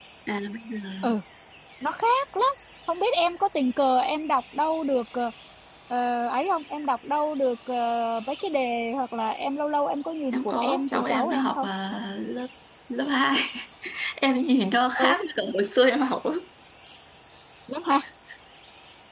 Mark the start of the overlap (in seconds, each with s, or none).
10.3 s